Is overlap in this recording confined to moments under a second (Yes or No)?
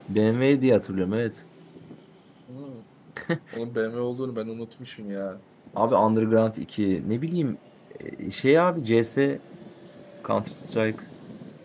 Yes